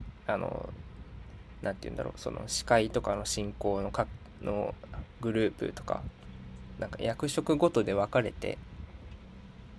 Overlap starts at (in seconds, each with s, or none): none